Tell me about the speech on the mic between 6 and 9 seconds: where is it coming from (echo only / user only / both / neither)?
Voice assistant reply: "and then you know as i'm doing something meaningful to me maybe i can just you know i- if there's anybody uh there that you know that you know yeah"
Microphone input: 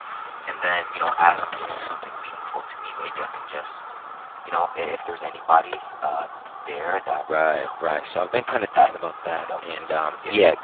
both